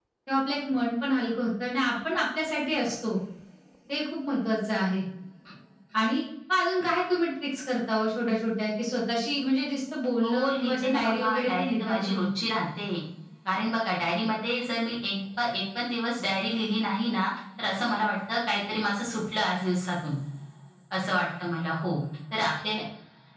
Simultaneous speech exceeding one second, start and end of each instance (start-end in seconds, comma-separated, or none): 10.2-12.2